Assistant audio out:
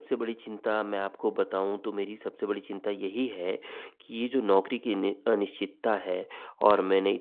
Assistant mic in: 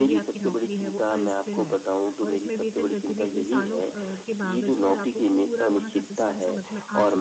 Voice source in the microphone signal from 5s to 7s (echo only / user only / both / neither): both